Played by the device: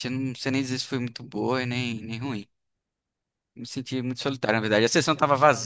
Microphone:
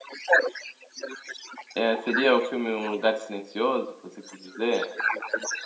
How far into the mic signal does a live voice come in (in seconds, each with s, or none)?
1.7 s